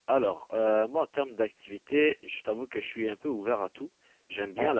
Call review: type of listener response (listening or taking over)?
listening